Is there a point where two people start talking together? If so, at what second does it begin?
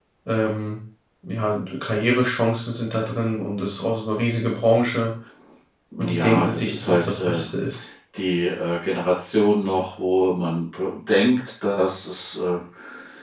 6 s

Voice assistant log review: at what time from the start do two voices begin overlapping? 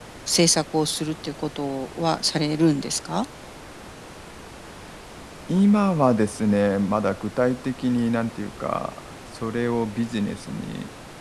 none

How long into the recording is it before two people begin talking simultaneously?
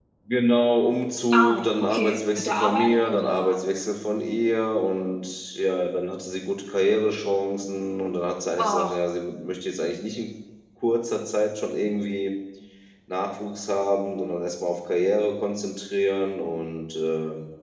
1 s

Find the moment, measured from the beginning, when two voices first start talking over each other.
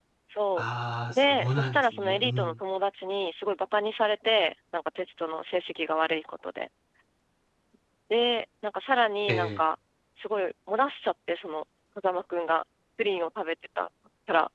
1 s

